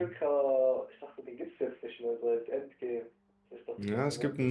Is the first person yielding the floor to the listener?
Yes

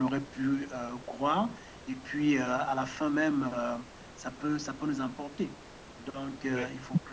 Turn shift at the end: No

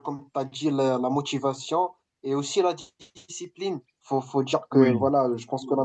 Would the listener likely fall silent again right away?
Yes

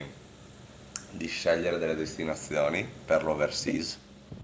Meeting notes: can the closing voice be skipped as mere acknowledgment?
Yes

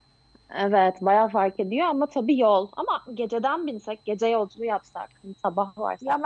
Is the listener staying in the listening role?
No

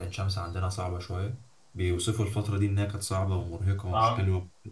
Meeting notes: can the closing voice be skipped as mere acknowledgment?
Yes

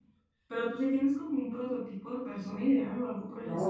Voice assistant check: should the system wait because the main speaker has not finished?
No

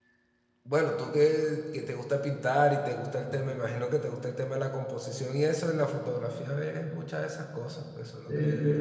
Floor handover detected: Yes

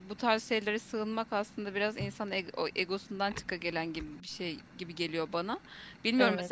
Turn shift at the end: No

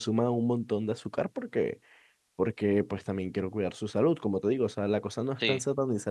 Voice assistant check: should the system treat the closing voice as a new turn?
No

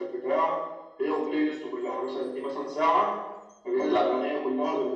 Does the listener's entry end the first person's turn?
No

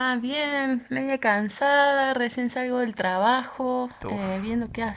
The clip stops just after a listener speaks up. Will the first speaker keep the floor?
Yes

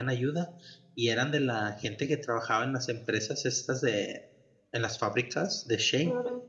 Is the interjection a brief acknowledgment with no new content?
Yes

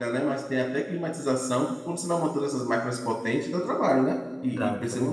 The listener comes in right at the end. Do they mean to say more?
Yes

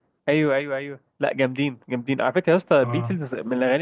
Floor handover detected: No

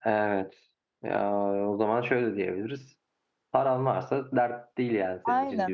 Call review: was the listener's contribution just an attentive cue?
No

